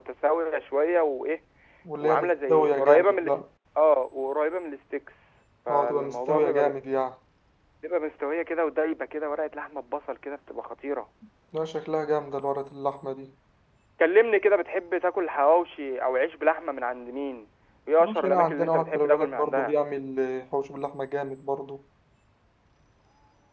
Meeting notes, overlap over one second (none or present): present